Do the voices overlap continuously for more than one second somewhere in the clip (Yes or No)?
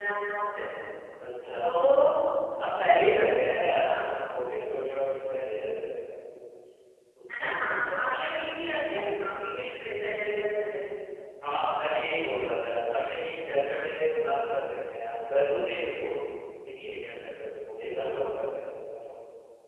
No